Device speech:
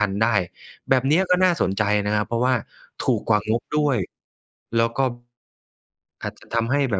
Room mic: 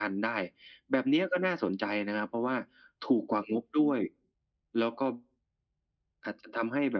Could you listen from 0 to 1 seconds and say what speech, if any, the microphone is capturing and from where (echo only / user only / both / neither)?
echo only